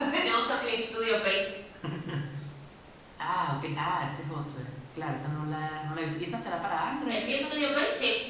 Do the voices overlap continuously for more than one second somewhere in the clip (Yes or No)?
No